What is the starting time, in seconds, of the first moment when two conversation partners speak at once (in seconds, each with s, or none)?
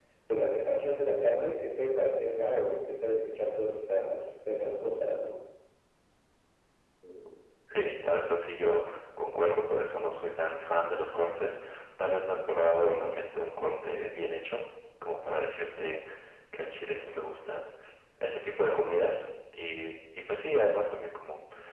none